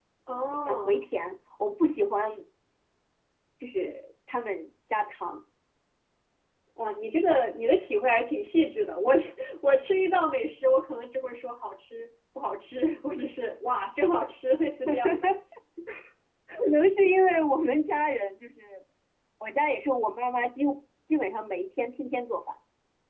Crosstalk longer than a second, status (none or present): none